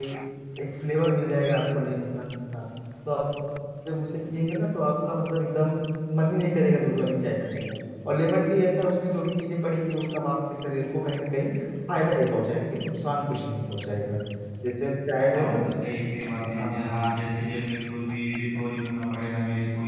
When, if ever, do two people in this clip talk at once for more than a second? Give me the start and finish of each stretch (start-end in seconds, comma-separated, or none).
none